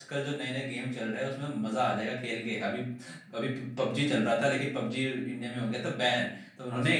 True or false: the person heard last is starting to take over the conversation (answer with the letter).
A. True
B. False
B